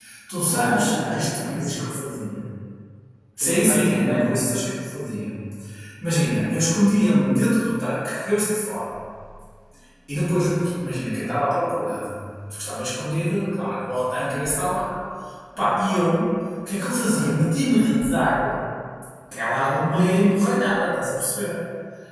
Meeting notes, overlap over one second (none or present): present